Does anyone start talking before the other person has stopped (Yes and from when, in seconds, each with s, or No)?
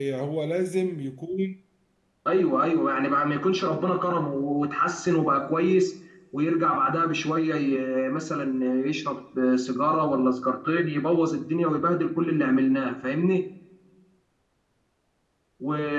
No